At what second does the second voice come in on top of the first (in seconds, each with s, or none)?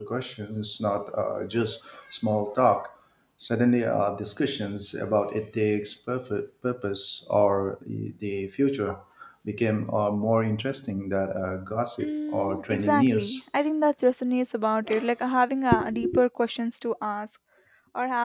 12.0 s